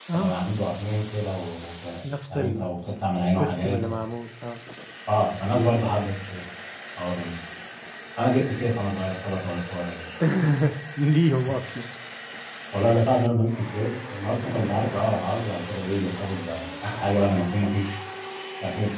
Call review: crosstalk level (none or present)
present